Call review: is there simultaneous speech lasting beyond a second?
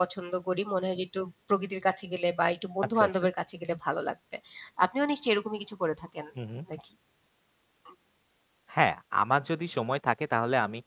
No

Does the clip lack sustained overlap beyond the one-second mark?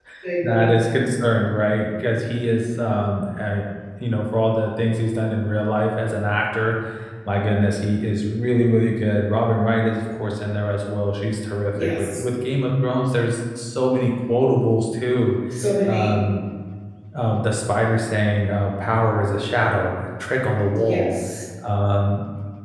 Yes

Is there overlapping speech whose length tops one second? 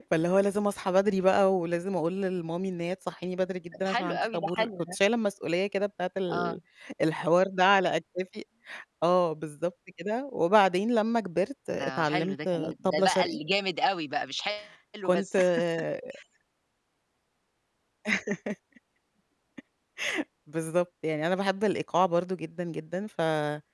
Yes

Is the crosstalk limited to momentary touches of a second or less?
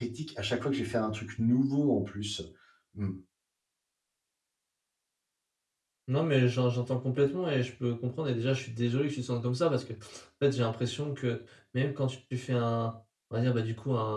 Yes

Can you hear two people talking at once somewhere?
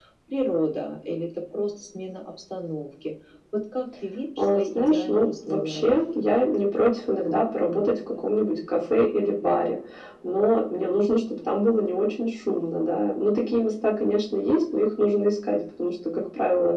Yes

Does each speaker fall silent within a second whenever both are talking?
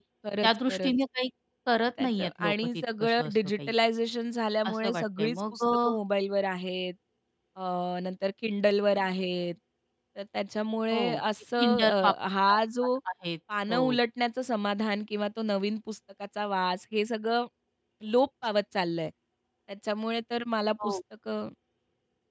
No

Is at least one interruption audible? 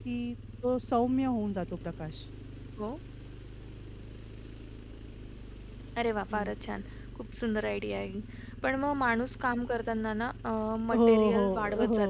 Yes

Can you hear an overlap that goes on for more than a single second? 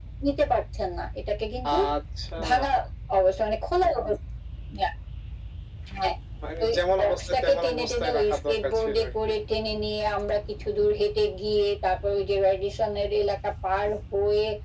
Yes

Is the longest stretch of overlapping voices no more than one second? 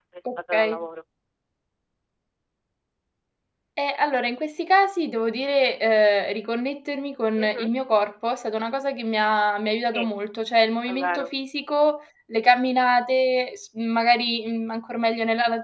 Yes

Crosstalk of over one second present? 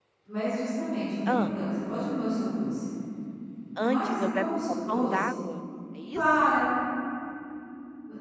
Yes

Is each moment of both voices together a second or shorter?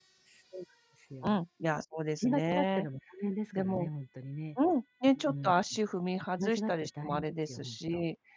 No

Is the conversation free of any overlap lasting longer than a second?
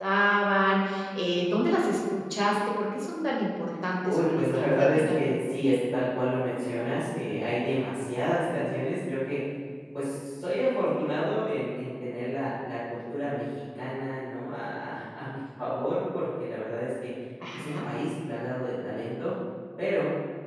No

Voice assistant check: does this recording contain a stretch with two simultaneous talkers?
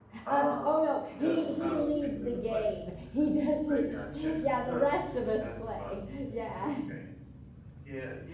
Yes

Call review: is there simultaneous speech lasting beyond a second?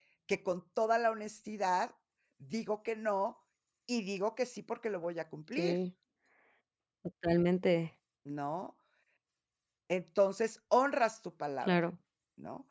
No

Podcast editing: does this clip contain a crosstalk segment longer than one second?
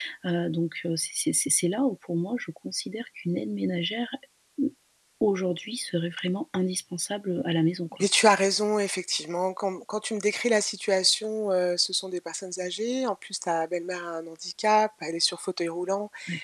No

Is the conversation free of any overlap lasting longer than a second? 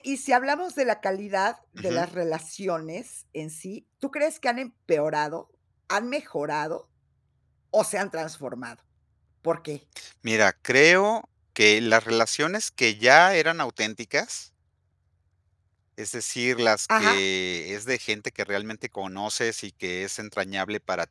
Yes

